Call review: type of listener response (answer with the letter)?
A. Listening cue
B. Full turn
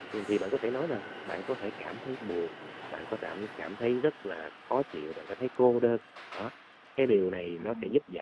A